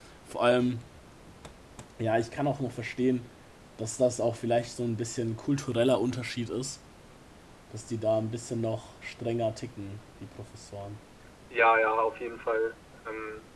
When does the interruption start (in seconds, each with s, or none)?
none